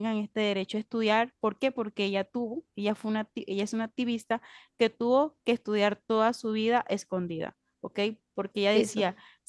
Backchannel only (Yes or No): Yes